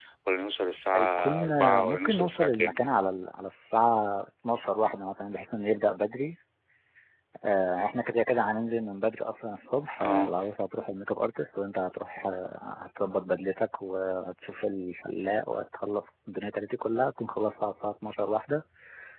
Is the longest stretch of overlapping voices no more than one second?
No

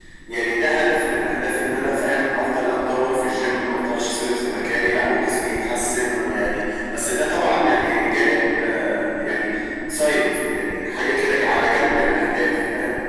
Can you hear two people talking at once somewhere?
No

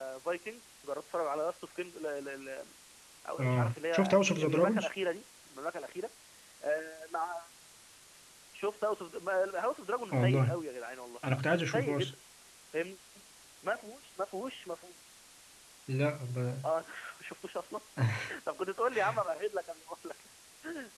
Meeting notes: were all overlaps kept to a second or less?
No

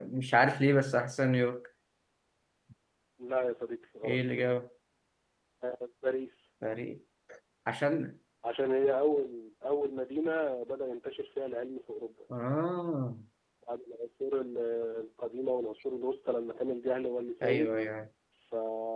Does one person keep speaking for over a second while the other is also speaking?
No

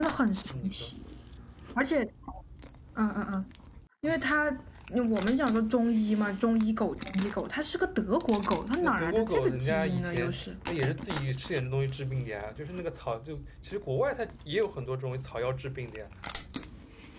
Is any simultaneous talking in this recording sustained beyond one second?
Yes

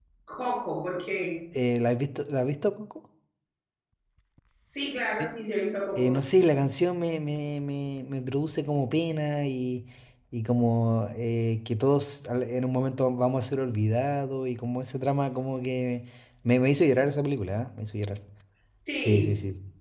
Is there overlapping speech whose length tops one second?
No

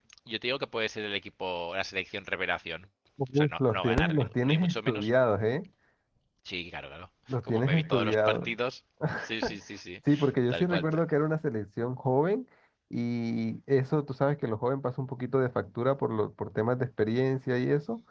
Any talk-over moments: Yes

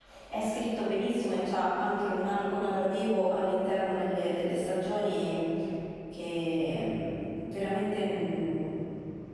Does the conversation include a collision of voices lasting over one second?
No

